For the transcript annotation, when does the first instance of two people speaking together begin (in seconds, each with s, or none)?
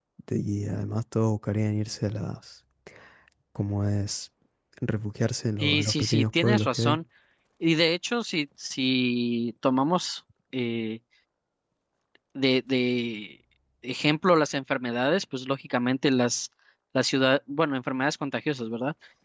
5.6 s